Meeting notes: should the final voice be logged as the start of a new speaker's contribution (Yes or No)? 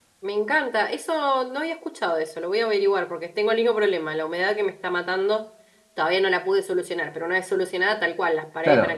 Yes